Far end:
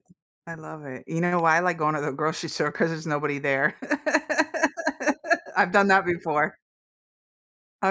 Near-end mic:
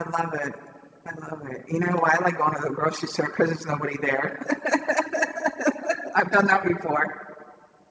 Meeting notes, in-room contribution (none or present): none